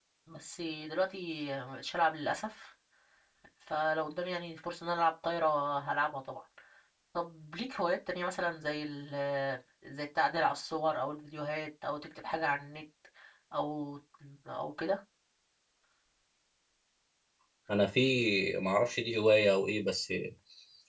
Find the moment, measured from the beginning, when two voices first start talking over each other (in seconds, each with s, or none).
none